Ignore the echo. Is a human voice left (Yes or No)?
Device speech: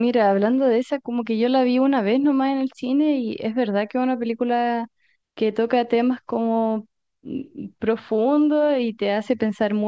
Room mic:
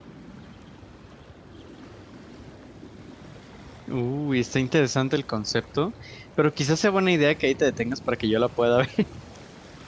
Yes